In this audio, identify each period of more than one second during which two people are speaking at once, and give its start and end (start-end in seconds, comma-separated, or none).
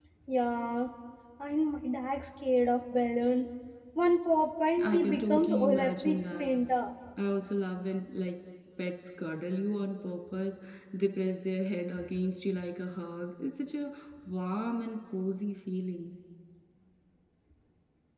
4.8-6.5